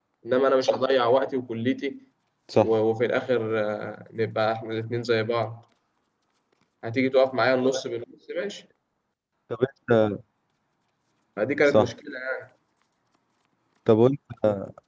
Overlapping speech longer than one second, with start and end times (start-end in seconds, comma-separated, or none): none